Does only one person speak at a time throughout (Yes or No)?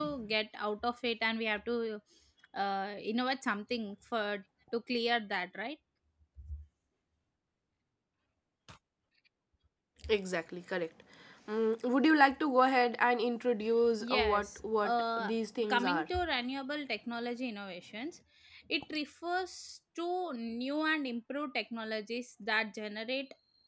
No